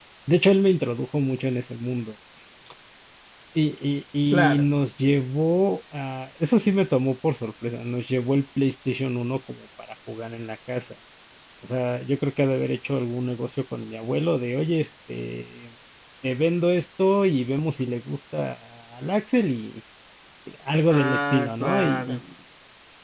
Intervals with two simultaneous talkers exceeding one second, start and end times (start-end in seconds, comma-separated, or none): 20.9-22.2